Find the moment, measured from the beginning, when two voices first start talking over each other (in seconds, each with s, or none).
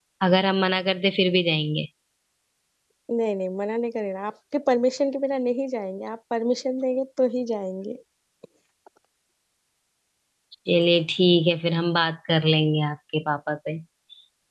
none